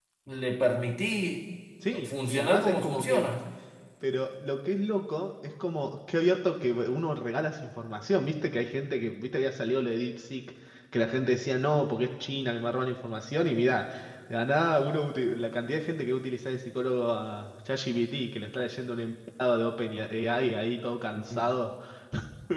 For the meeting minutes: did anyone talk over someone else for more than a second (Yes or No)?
Yes